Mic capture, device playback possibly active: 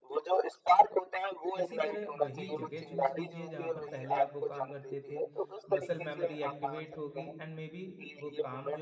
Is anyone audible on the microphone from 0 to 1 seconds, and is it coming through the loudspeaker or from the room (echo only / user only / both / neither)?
echo only